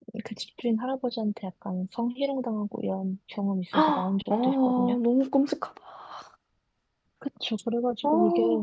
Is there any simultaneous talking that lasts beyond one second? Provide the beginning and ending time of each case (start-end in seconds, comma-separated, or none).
3.7-5.0